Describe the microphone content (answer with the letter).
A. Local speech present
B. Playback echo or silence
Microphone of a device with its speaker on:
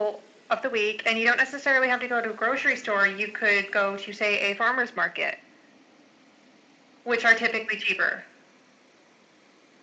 B